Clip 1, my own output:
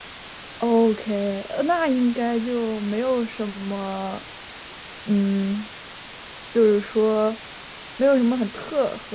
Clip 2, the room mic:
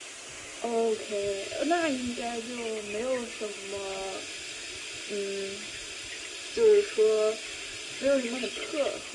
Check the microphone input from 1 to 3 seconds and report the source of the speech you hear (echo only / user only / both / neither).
echo only